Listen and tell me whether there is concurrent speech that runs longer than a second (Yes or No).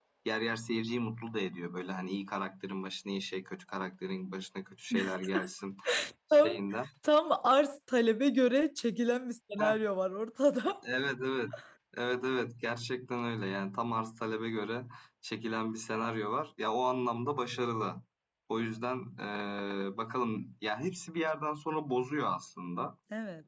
No